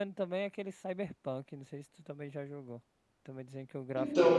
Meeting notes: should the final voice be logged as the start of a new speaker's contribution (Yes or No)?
Yes